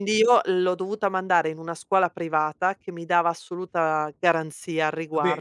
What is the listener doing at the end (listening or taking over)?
listening